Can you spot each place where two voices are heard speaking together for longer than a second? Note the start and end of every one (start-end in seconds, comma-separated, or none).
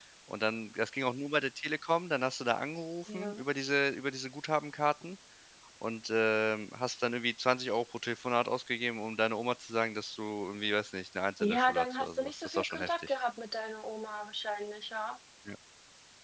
11.4-13.1